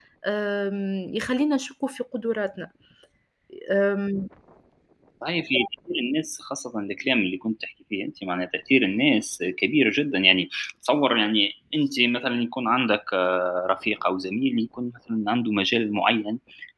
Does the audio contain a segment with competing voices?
No

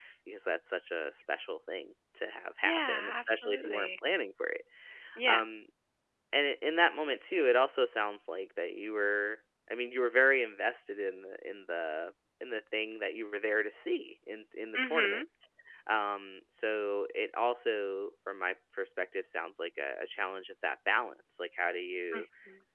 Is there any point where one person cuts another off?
Yes, from 2.6 s

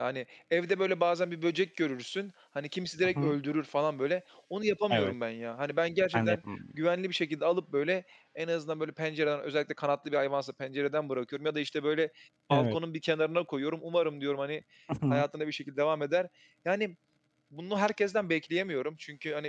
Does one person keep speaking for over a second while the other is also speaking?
No

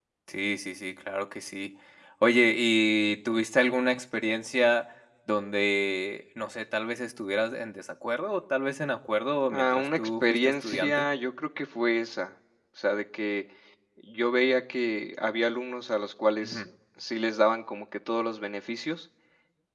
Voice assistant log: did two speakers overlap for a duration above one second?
Yes, from 9.5 s

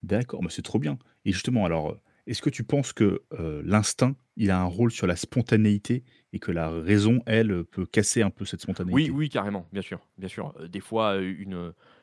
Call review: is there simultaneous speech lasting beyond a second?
No

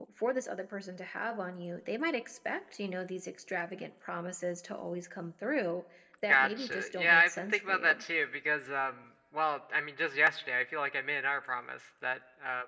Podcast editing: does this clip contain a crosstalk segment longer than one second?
Yes, from 6.3 s

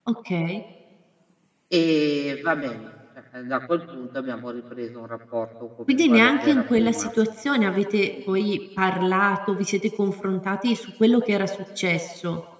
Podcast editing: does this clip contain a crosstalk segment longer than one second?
Yes, from 5.9 s

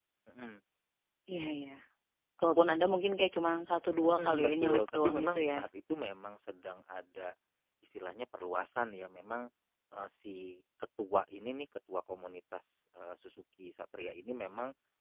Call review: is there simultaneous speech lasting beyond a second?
Yes, from 4.2 s

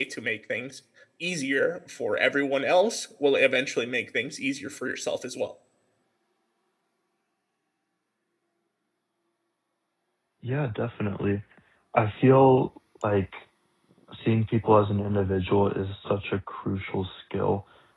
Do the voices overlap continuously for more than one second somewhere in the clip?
No

